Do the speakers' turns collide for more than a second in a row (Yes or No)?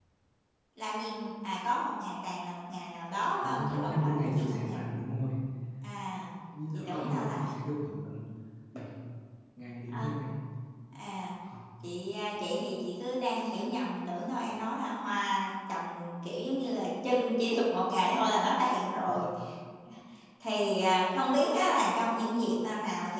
Yes